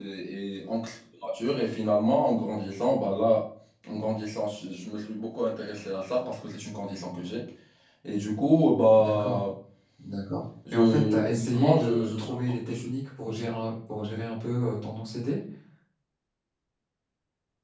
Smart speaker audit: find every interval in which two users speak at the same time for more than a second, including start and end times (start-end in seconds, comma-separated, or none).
10.7-12.9